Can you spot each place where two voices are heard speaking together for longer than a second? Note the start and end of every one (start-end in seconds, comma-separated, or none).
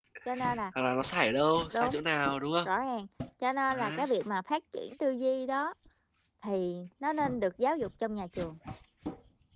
none